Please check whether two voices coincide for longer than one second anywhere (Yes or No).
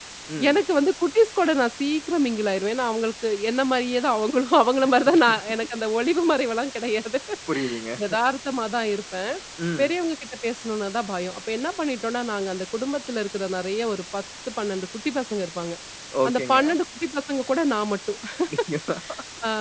No